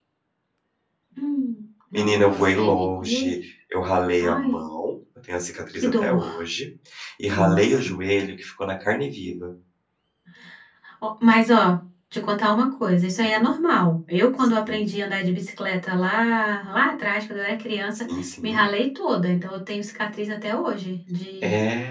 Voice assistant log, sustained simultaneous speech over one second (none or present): present